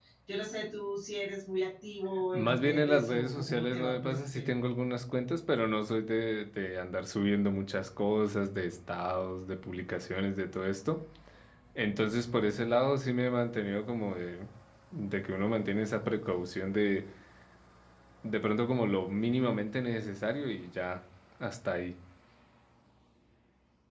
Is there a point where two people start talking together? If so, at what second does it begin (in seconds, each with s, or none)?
2.3 s